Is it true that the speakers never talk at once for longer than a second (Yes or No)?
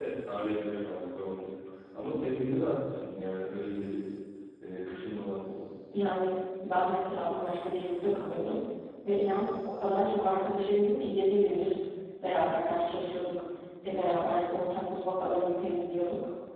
Yes